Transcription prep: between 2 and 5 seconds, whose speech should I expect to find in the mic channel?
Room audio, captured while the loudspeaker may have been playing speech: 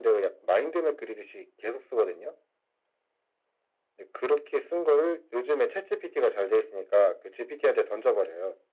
echo only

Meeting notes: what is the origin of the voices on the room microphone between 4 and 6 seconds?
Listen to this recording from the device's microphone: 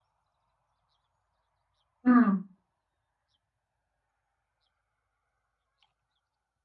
neither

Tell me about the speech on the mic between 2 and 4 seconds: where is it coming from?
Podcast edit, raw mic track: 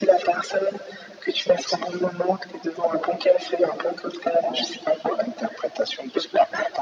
echo only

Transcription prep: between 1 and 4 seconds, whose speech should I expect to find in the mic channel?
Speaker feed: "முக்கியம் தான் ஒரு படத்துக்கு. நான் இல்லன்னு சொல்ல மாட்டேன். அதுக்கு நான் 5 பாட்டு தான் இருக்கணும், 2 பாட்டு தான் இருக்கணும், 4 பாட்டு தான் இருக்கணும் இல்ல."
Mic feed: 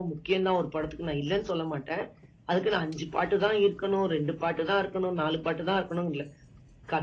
echo only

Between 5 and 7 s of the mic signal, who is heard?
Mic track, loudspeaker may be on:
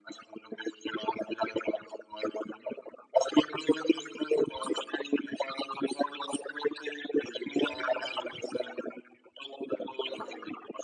echo only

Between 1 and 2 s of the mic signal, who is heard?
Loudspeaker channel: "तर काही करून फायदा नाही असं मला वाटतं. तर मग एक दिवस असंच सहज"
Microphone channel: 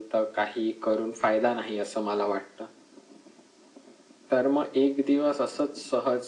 echo only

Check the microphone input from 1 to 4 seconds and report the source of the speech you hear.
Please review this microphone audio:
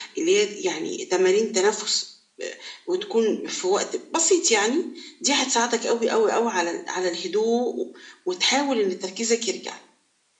echo only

